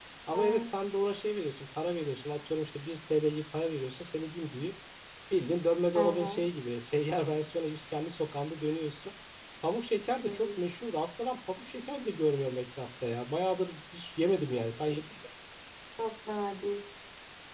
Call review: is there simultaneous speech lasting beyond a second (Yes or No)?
No